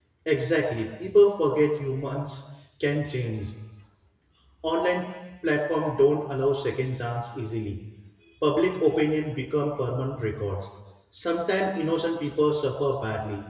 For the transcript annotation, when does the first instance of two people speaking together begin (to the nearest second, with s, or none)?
none